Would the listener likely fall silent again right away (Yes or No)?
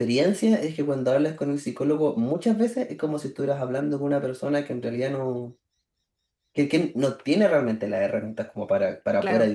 Yes